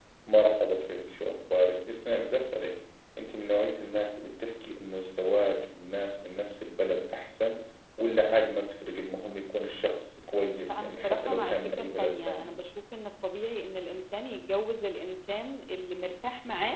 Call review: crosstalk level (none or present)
present